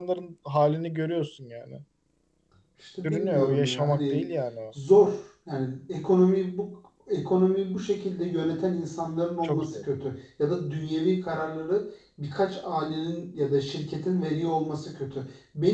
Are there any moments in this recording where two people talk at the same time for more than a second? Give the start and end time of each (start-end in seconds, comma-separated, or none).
3.0-4.2